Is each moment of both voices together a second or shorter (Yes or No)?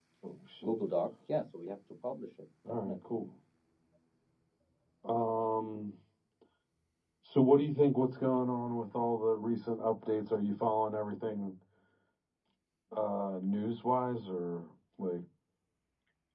Yes